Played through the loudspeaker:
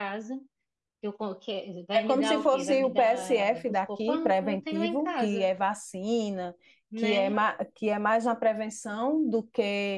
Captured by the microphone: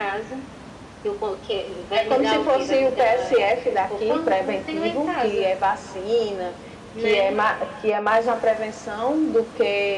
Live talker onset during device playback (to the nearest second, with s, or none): none